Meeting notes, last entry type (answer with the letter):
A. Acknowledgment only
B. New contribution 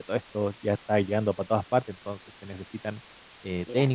A